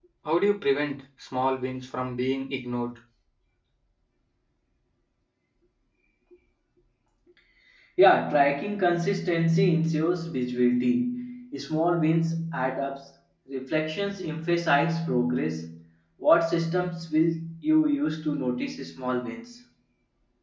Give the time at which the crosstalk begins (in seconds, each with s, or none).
none